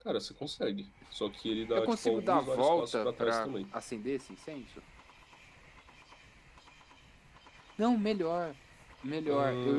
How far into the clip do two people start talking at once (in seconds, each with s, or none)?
1.7 s